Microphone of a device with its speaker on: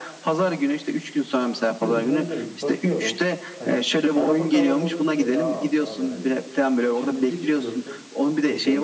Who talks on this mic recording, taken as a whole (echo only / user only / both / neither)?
both